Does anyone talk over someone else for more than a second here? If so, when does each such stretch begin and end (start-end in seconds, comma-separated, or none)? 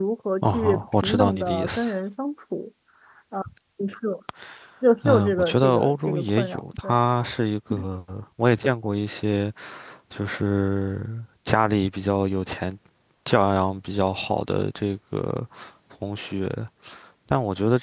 0.5-1.9, 5.0-6.9